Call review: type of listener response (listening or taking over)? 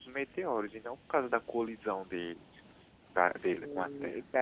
taking over